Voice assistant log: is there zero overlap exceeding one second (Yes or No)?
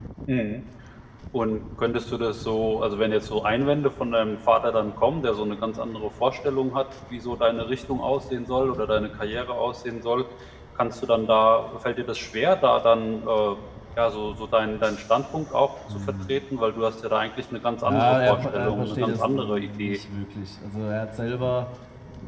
No